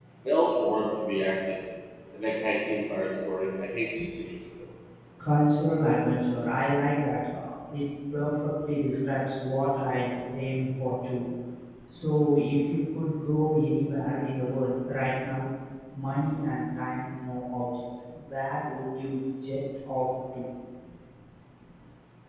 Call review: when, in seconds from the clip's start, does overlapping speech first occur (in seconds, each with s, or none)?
none